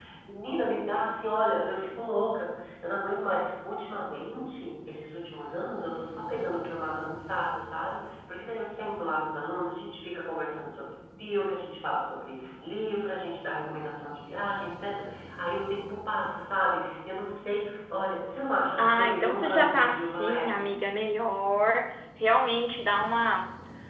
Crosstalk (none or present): present